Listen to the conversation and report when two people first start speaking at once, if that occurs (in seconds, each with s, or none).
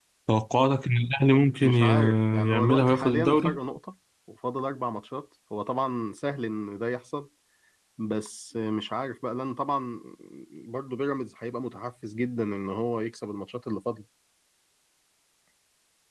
1.6 s